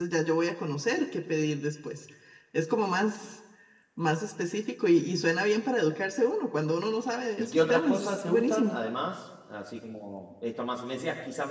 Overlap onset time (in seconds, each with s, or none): 7.4 s